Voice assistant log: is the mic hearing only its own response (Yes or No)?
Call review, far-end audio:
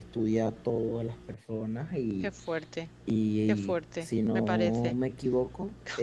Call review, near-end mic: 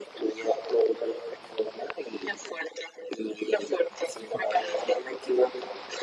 Yes